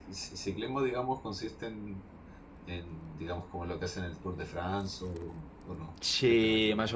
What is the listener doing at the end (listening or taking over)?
taking over